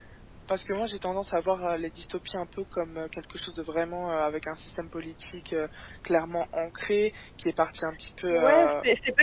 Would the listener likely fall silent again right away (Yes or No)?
No